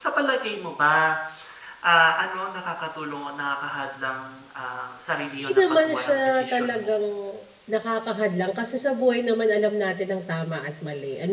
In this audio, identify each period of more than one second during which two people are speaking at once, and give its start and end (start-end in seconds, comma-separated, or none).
5.4-6.9